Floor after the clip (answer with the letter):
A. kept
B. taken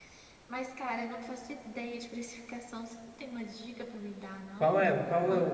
B